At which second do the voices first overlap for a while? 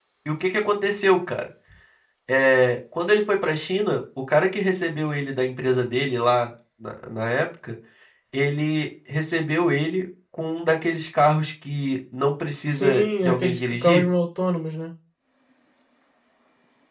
12.7 s

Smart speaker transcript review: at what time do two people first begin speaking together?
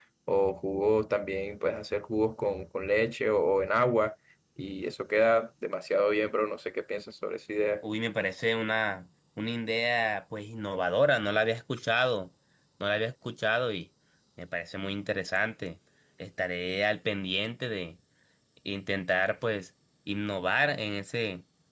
none

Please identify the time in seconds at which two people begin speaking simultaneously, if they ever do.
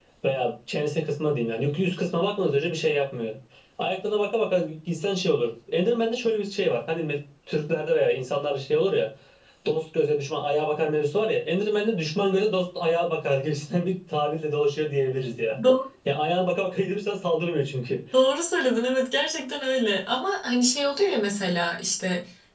none

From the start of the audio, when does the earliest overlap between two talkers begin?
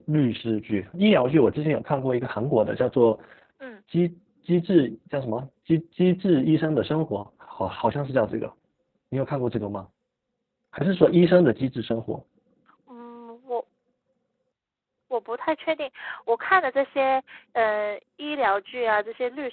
none

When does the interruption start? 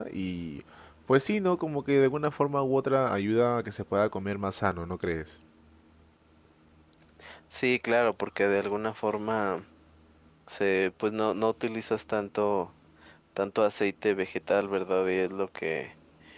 none

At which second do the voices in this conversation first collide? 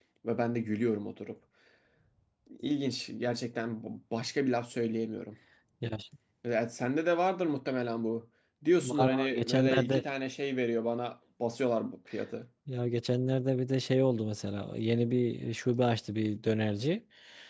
8.8 s

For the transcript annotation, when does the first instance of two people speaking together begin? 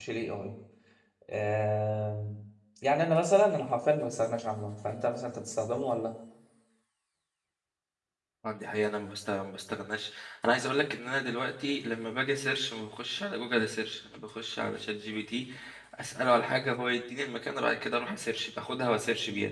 none

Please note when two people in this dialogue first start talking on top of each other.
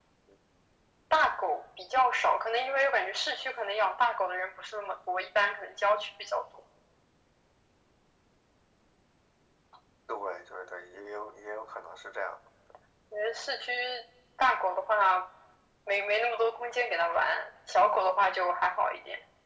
none

